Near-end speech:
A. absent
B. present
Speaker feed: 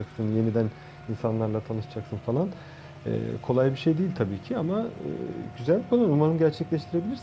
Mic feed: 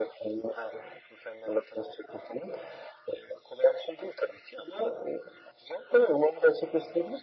A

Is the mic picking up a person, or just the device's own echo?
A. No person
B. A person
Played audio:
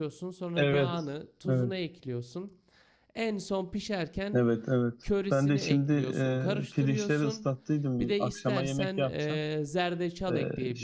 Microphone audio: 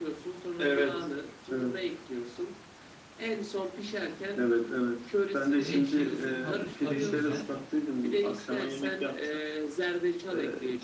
B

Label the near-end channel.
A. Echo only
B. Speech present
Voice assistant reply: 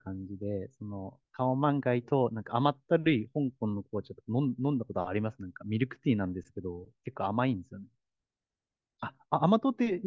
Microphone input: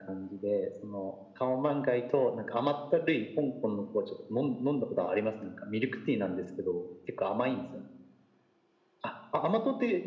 A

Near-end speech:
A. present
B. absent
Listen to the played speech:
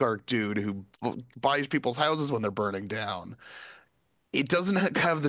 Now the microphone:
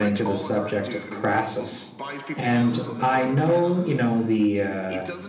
A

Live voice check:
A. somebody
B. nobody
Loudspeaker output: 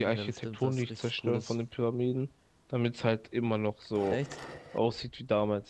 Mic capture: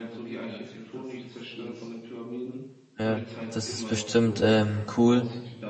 A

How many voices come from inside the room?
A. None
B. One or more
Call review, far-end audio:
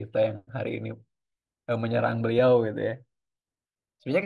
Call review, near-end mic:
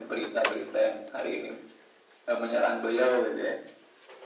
A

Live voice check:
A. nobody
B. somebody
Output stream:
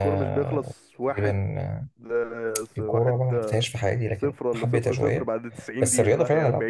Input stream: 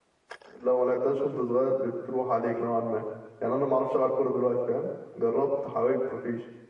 B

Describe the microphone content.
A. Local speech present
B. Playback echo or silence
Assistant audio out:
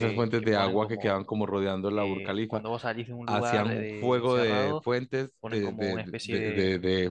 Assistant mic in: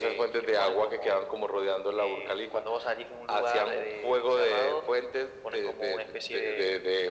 B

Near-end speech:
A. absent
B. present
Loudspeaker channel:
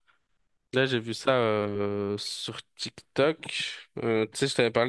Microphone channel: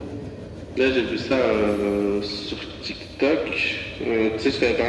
A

